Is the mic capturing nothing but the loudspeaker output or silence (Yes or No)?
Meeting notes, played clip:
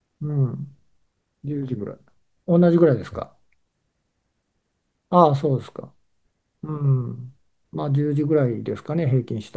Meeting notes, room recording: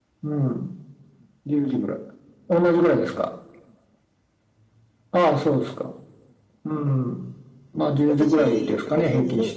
No